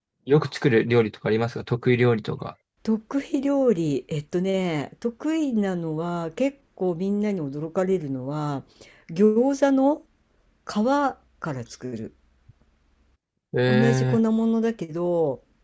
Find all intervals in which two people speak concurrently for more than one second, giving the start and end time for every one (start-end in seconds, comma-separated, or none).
none